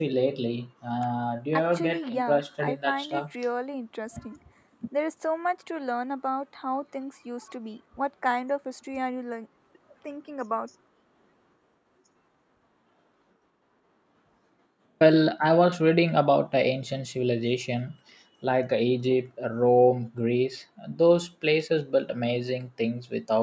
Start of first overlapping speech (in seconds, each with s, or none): 1.5 s